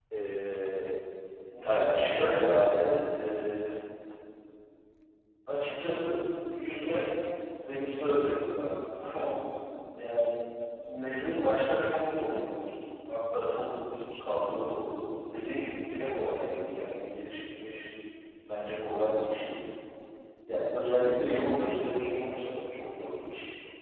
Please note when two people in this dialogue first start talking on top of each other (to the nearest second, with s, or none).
2 s